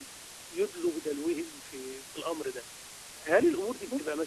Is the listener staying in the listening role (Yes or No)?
Yes